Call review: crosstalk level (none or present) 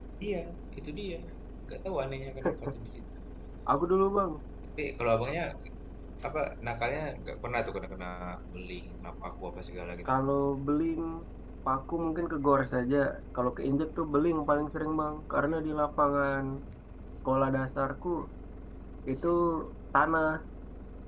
none